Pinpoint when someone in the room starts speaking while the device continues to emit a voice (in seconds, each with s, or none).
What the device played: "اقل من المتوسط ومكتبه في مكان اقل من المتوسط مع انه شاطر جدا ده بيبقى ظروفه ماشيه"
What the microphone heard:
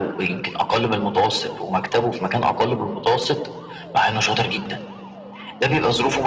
none